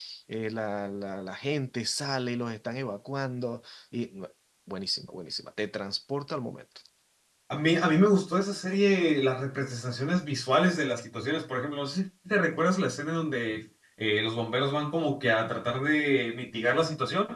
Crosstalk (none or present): none